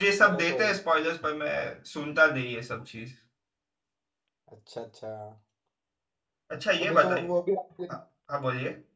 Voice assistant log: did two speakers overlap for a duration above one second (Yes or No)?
No